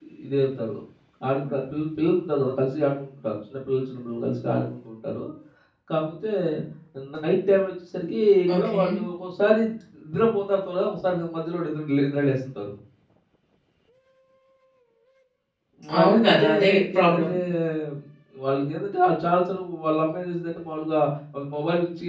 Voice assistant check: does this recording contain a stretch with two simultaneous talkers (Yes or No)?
Yes